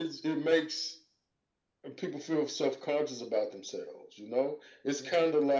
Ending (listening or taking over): listening